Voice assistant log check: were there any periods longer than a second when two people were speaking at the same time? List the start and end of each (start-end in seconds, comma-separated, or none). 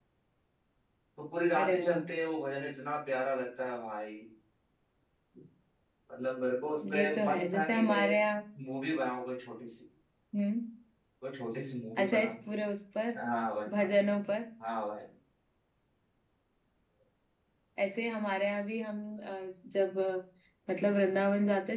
6.9-8.2